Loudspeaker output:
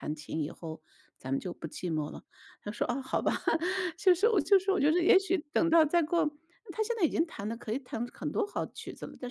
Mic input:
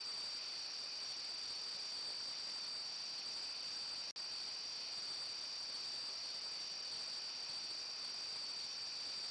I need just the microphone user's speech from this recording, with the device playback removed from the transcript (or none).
none